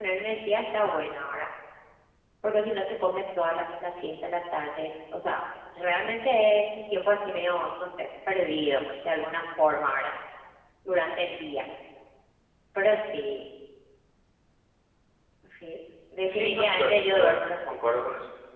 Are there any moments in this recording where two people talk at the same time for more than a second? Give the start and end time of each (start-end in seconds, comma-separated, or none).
16.3-17.8